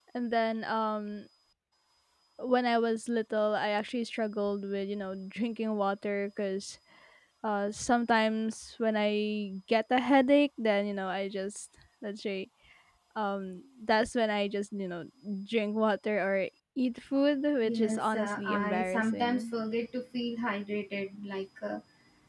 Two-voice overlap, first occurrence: 18 s

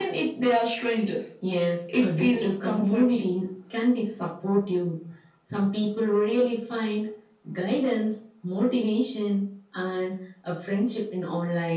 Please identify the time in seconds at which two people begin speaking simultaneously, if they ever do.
2 s

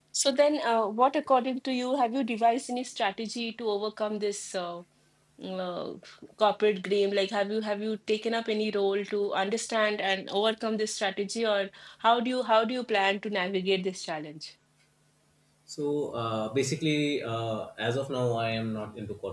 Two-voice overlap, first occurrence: none

